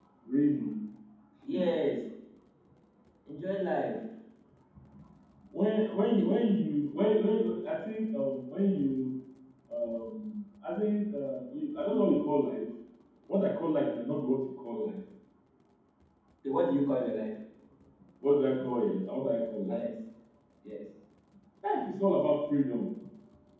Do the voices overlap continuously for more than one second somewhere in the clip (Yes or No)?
No